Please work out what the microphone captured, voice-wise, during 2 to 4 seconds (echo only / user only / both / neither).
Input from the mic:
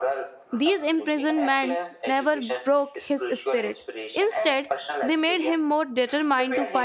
both